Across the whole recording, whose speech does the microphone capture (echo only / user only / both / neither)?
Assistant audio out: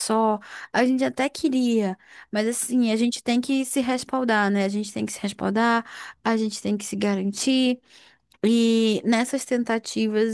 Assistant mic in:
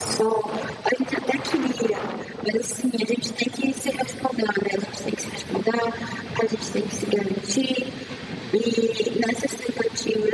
echo only